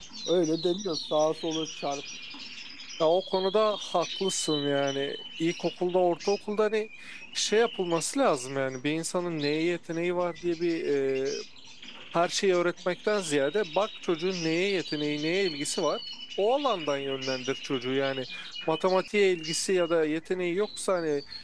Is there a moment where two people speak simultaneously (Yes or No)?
No